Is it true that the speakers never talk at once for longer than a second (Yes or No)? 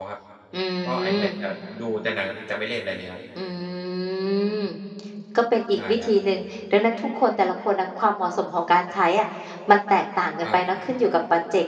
Yes